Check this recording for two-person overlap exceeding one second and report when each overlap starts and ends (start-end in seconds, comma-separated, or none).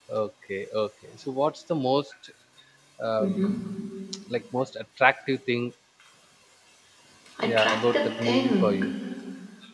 7.5-8.7